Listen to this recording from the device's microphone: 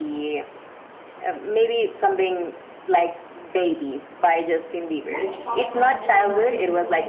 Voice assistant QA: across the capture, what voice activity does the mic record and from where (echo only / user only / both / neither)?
both